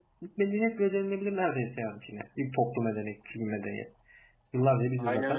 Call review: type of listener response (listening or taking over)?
taking over